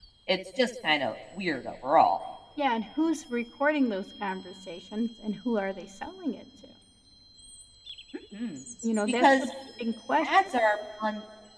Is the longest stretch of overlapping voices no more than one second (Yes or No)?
Yes